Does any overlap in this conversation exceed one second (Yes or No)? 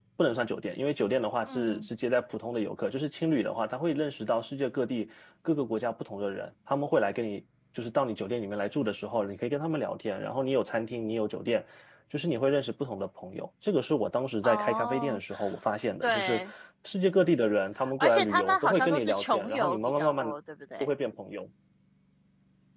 Yes